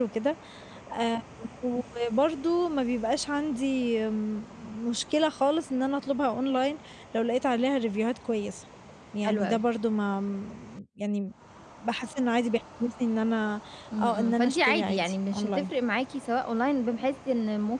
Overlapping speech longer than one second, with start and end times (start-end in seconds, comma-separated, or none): 14.0-15.7